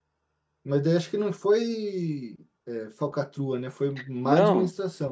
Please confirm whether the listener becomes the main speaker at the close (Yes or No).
Yes